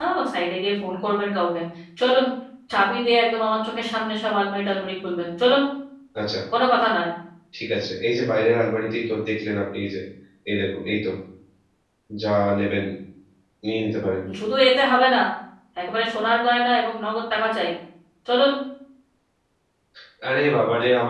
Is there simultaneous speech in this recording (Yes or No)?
No